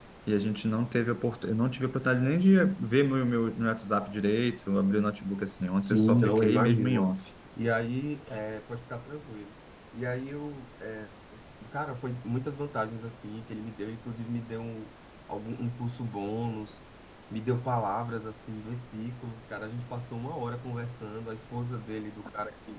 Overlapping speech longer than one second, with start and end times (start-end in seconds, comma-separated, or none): 5.8-7.1